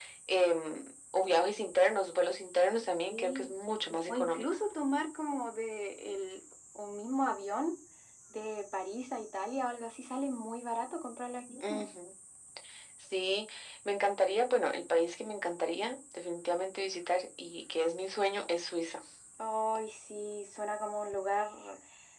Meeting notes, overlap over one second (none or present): none